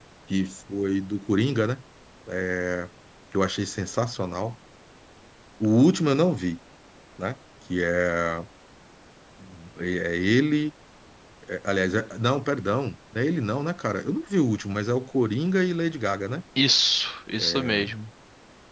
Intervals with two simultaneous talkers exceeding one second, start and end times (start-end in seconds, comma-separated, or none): none